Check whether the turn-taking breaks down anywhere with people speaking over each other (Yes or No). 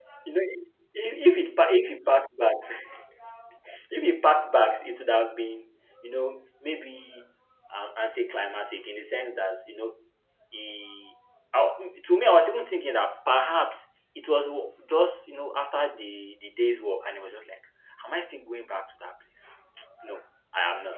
No